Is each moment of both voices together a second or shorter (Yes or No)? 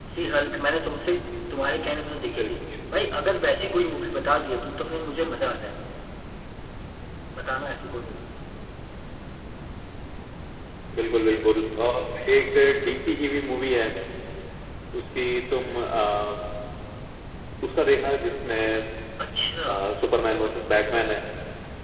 Yes